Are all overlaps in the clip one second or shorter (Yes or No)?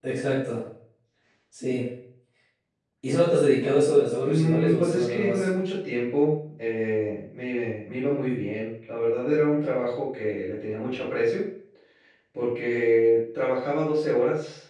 No